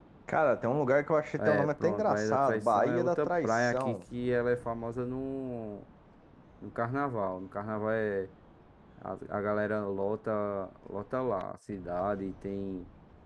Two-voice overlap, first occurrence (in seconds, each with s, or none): 1.4 s